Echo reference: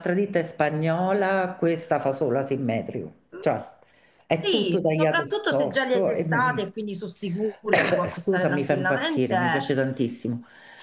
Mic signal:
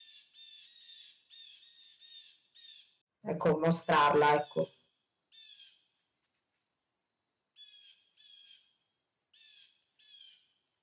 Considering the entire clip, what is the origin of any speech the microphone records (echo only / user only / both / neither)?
user only